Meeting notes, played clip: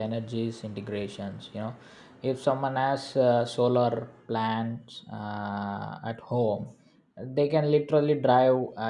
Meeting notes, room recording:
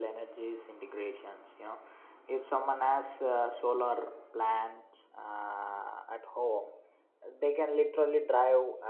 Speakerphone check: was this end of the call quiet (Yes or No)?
Yes